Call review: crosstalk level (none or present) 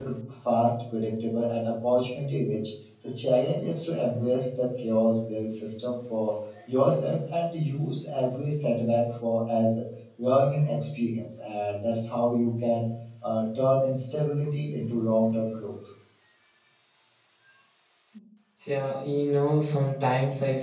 none